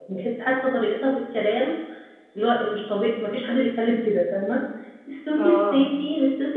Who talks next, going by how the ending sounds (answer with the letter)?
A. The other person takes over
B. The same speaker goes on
B